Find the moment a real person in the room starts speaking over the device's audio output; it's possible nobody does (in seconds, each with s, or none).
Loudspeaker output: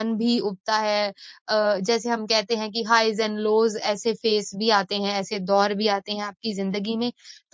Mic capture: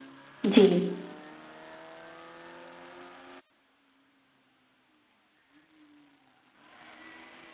0.5 s